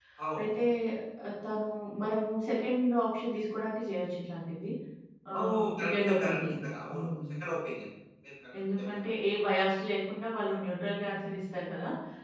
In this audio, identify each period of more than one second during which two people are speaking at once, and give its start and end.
5.4-7.3

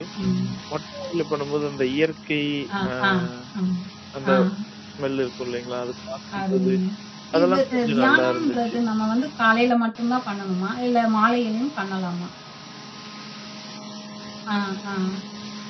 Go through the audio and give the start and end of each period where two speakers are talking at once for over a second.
7.4-8.7

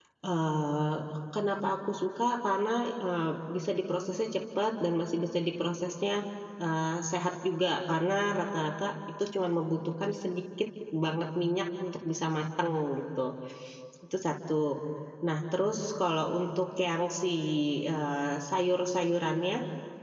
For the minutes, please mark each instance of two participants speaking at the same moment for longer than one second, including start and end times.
none

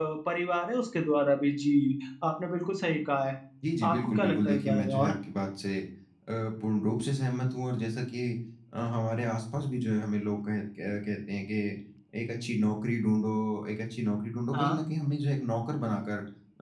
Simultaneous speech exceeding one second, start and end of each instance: 3.9-5.2

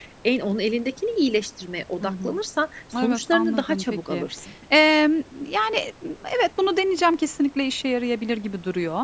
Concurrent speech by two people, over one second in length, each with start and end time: 3.0-4.3

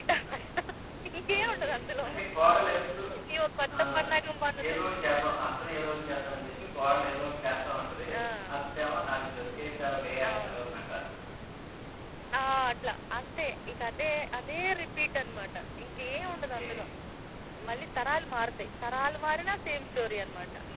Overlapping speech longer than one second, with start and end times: none

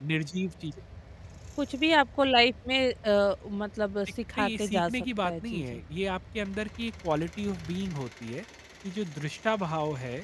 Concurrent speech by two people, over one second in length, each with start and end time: 4.4-5.8

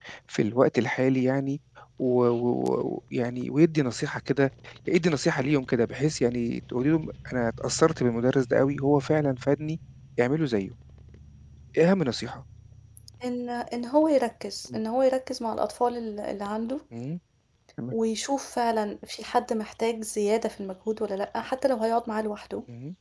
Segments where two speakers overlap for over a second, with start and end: none

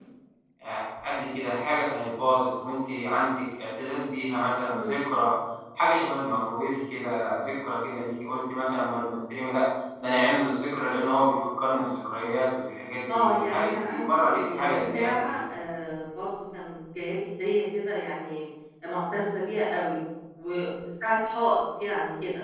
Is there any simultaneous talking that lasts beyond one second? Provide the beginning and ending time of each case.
13.1-15.4

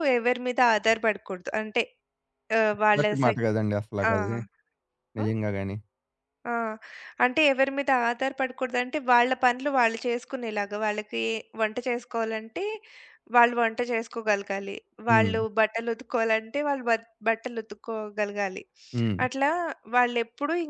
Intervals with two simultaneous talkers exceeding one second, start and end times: none

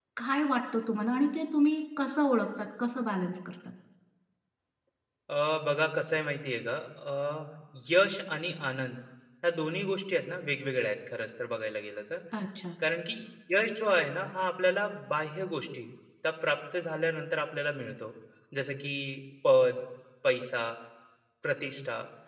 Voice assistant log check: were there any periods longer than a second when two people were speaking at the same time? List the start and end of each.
none

